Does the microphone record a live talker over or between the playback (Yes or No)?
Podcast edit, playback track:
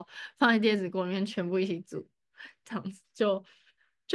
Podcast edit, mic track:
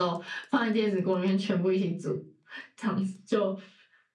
No